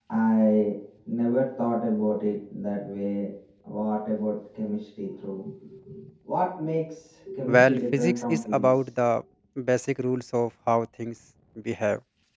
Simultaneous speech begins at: 7.5 s

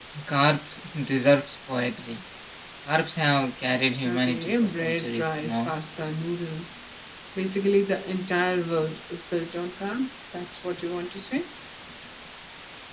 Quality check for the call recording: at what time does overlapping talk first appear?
4.0 s

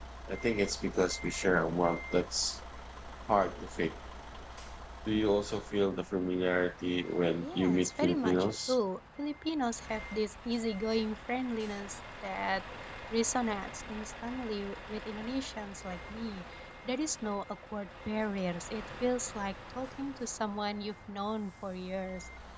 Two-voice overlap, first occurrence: 7.4 s

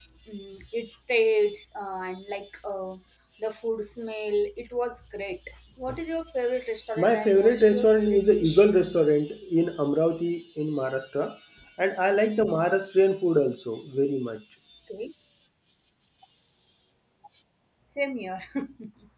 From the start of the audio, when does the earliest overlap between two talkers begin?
7.0 s

